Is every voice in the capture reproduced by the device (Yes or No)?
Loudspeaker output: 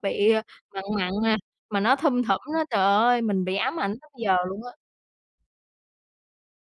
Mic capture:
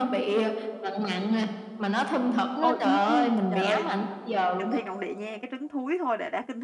No